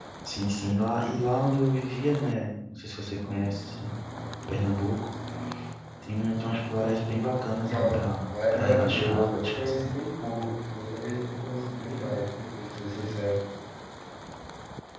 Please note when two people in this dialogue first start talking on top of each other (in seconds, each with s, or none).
7.7 s